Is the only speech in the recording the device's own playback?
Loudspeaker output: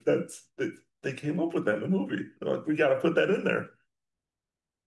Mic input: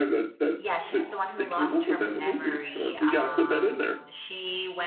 No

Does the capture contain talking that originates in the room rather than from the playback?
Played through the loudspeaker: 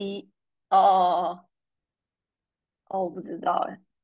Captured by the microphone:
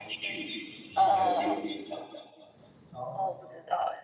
Yes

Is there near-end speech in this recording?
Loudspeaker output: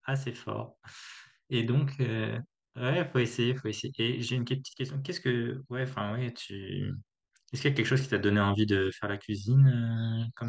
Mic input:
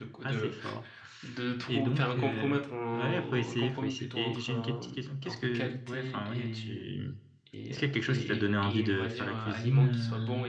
Yes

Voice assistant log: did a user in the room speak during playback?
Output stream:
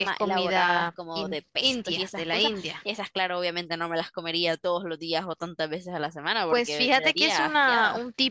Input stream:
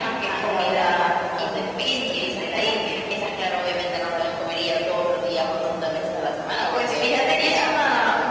No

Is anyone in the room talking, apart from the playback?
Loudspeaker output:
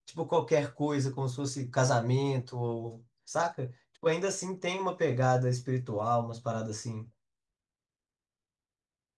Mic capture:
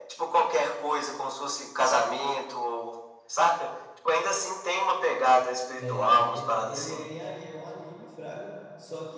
Yes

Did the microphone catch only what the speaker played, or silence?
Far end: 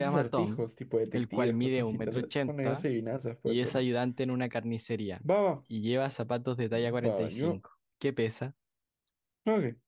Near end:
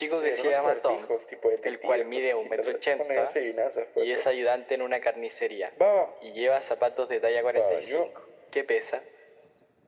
Yes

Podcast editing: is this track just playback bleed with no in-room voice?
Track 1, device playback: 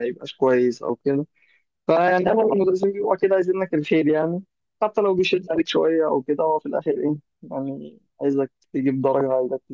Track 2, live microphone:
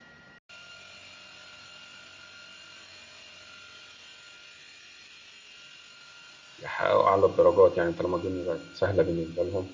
No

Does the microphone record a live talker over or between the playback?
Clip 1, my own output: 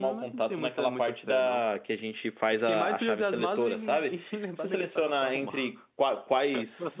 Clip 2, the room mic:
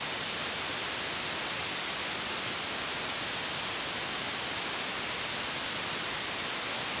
No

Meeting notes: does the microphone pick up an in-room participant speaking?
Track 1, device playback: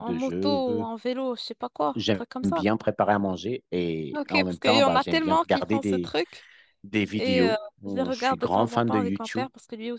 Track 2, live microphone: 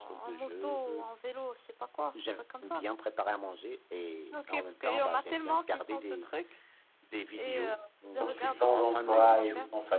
Yes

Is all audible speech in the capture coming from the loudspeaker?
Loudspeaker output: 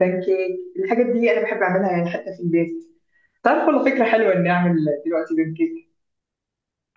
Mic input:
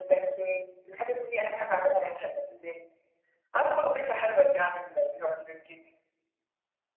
Yes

